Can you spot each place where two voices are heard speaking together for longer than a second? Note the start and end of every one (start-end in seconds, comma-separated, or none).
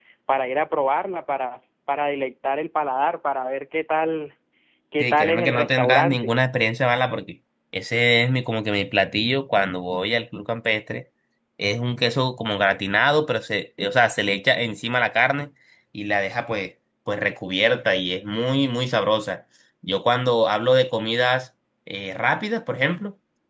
5.0-6.3